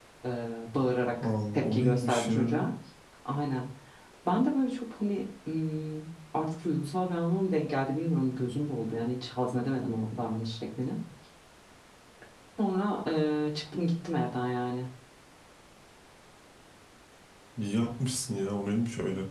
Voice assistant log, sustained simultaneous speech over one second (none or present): present